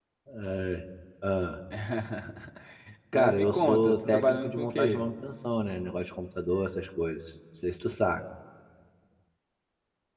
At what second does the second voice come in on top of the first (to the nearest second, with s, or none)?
3 s